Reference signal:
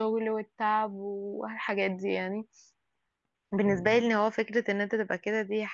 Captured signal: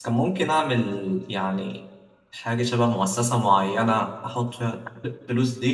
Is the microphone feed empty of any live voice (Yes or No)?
No